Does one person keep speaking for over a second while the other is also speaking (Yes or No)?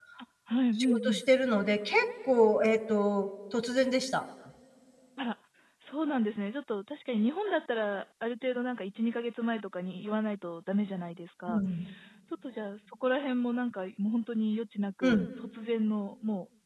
No